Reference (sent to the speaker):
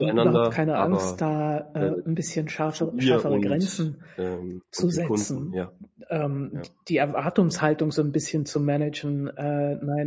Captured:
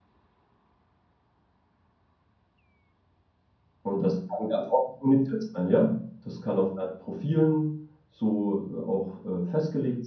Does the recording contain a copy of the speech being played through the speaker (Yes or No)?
No